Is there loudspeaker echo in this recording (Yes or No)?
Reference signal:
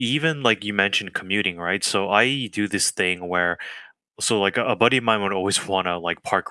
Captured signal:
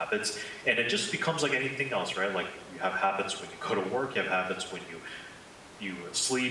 No